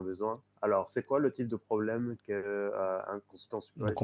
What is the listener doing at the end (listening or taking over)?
taking over